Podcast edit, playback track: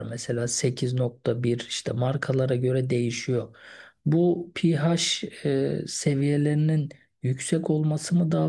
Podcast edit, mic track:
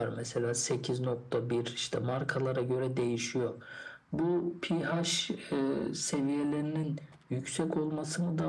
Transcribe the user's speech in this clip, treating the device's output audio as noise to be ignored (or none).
none